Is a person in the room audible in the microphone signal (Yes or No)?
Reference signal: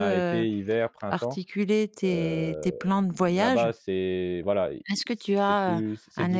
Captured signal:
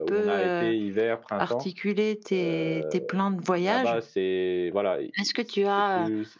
No